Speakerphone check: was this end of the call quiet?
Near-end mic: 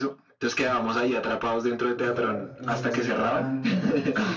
No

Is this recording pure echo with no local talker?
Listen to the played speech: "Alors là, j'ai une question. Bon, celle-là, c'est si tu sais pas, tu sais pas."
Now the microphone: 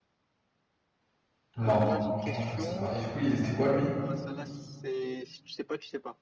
No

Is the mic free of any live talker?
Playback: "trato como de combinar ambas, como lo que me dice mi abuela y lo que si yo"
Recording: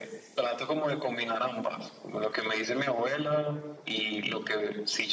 Yes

